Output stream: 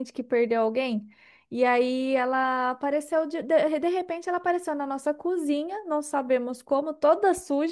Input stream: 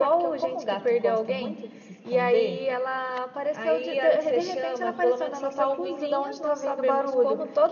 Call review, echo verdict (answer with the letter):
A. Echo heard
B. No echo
A